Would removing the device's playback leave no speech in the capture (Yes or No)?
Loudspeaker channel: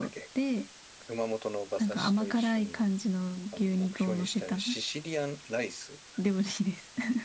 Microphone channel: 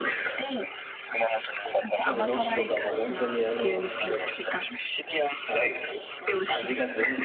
No